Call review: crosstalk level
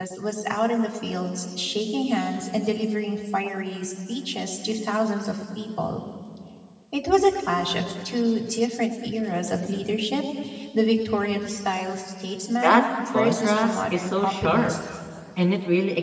present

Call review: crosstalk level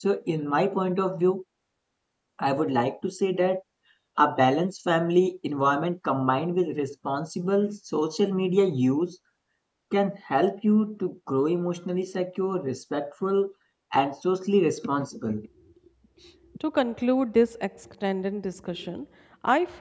none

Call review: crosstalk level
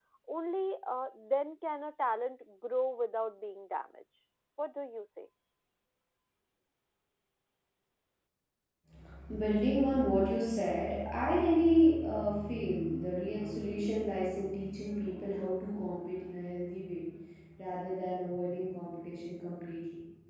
none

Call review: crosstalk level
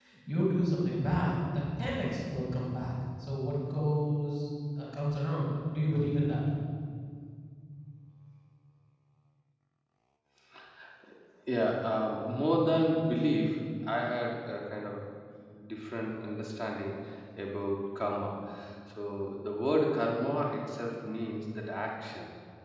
none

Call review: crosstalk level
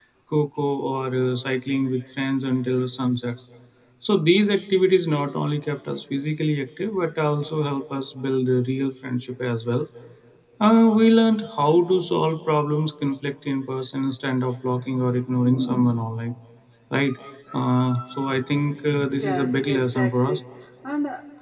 present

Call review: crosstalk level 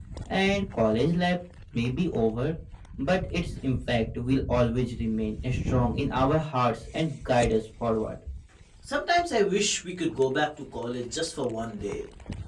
none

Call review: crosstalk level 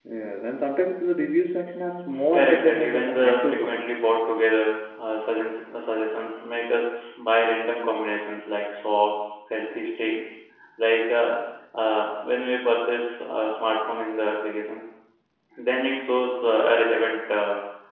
present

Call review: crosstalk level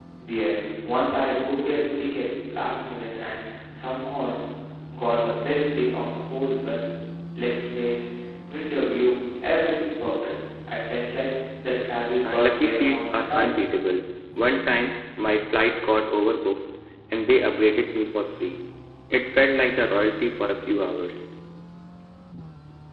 present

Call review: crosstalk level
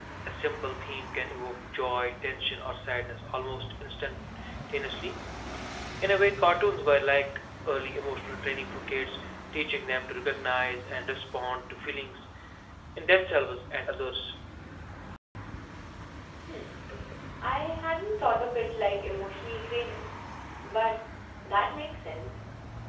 none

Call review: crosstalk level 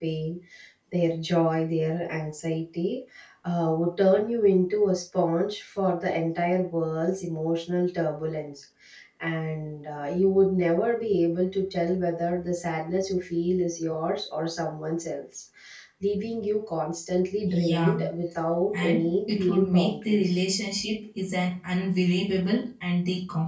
present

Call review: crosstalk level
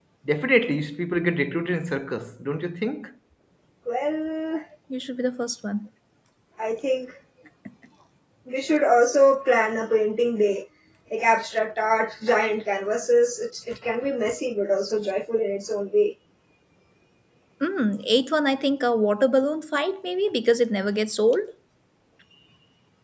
none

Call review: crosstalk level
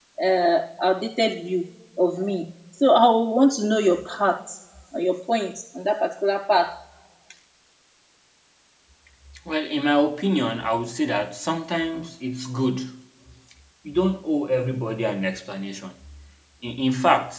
none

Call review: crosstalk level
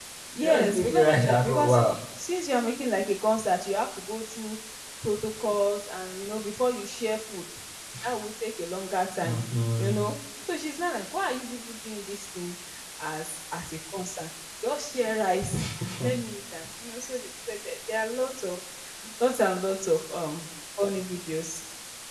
present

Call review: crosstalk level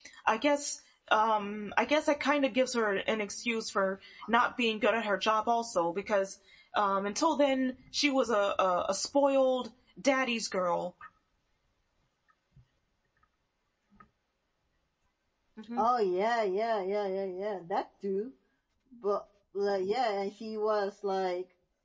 none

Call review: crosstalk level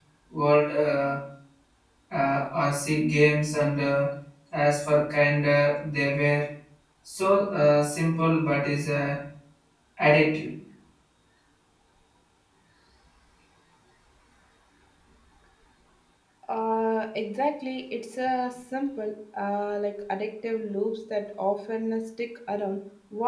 none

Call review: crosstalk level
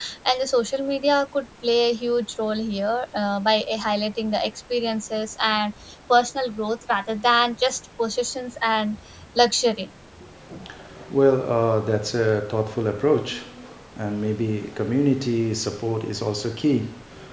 none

